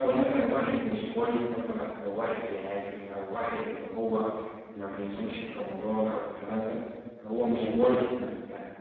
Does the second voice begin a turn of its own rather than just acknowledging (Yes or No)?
No